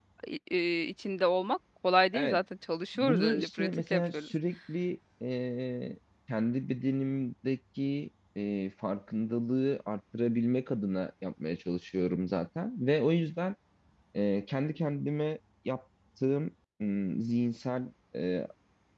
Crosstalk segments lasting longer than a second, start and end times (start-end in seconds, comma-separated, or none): 3.0-4.3